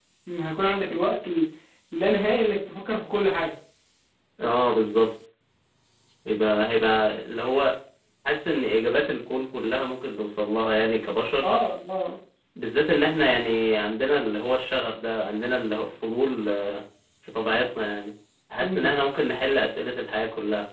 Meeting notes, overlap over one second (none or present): none